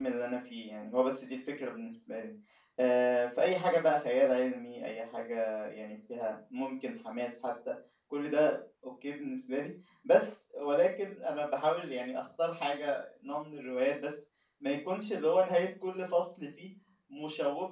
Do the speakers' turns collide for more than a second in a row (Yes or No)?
No